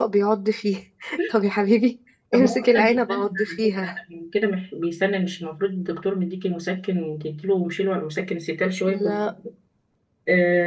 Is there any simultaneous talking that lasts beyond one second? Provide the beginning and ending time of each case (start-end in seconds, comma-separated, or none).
2.3-3.9